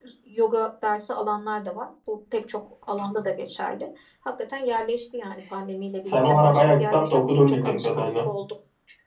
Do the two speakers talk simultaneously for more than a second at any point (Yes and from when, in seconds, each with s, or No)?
Yes, from 6.0 s